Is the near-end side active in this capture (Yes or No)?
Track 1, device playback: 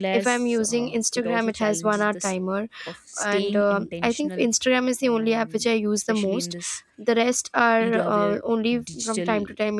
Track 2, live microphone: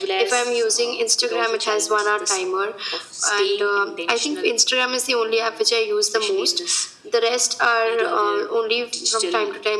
No